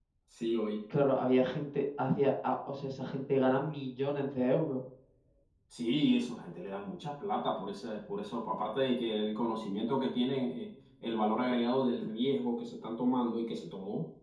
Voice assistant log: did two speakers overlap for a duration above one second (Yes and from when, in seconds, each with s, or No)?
No